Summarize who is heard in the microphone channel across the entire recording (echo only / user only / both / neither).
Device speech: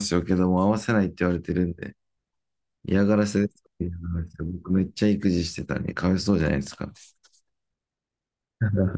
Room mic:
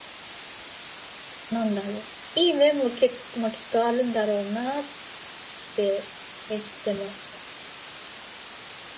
user only